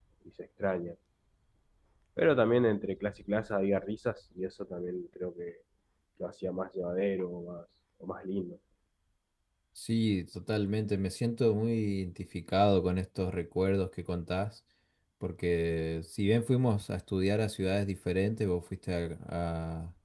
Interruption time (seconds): none

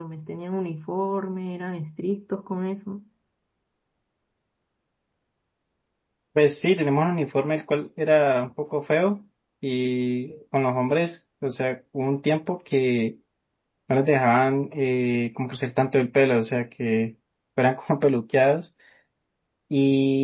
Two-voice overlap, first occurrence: none

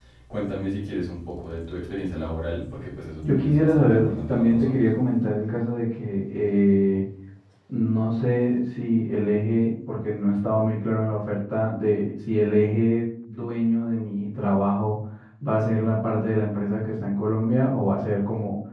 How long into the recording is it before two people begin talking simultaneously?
3.2 s

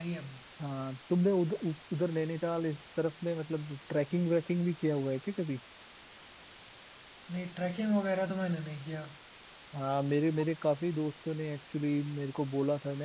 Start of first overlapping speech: none

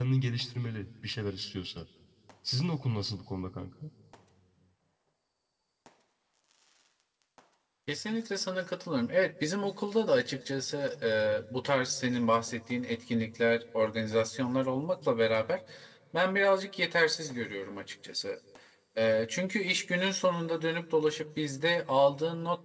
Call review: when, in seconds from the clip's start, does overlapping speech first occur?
none

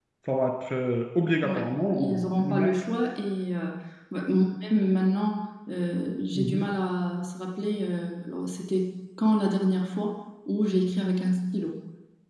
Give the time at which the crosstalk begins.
1.4 s

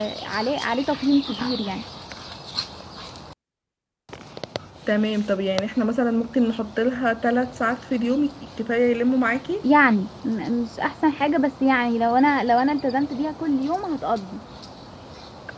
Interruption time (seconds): none

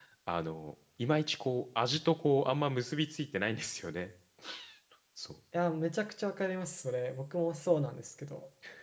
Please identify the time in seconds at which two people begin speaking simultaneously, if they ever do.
none

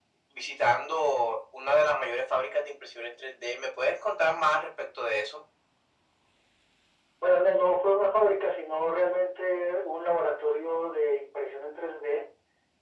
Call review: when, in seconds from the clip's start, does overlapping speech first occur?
none

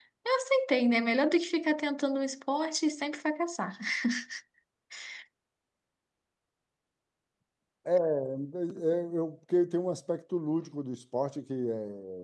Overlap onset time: none

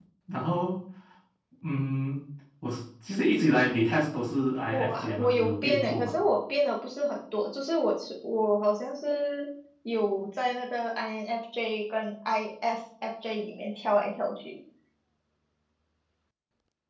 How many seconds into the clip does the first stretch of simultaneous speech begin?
4.7 s

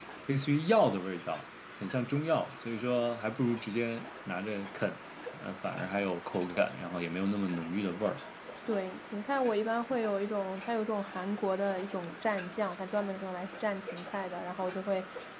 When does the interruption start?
none

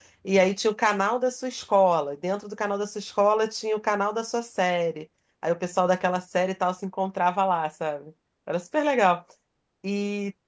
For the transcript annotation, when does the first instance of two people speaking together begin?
none

